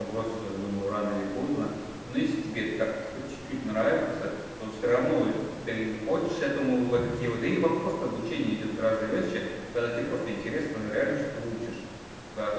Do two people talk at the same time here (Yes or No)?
No